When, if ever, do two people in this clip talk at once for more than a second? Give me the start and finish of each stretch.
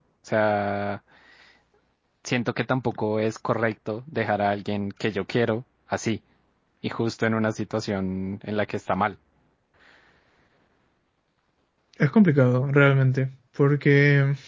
none

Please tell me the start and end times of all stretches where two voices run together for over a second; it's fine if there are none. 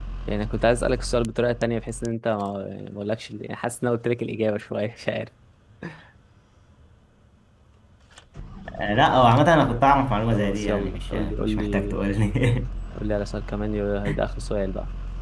10.3-12.0

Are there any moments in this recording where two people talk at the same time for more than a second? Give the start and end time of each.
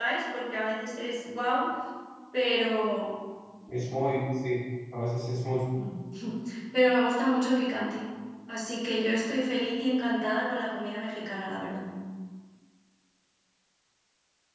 none

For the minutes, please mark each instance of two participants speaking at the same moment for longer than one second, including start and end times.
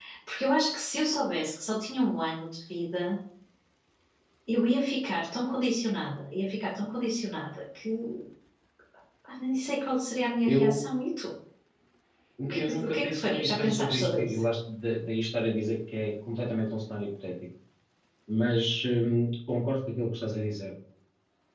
12.5-14.4

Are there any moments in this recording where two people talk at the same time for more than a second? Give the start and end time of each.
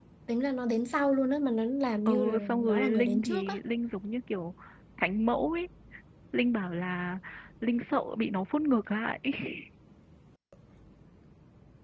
2.1-3.5

